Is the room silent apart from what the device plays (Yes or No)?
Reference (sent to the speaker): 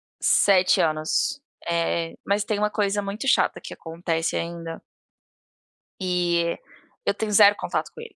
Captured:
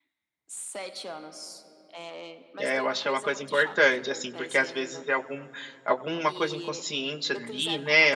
No